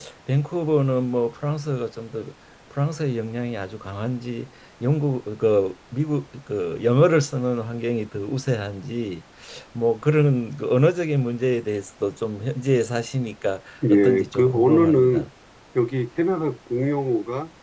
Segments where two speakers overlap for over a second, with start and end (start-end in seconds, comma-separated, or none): 13.9-15.2